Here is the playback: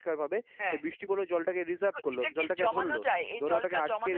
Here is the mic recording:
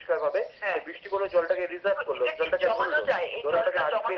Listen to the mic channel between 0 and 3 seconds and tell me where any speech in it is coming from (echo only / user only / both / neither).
echo only